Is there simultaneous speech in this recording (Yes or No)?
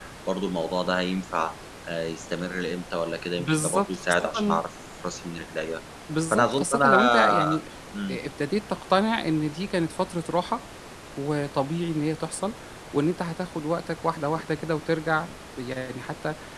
Yes